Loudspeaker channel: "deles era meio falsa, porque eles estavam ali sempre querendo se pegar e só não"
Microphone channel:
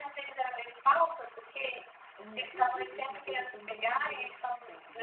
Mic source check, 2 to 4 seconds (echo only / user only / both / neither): both